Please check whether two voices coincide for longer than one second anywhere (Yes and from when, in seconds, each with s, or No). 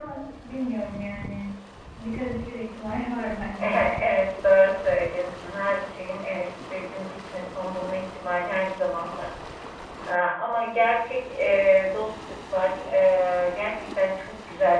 No